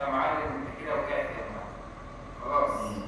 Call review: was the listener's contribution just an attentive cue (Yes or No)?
No